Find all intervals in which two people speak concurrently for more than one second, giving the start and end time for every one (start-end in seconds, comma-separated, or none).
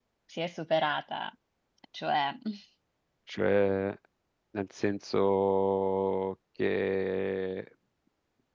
none